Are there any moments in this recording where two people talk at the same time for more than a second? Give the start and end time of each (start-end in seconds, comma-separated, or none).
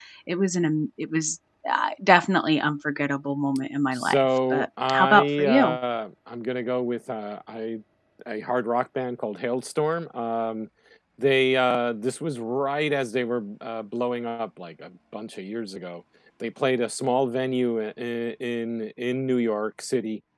3.9-5.8